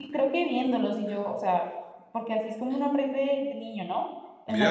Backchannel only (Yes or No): No